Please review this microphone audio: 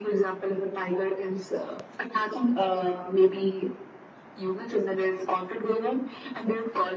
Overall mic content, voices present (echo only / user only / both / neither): echo only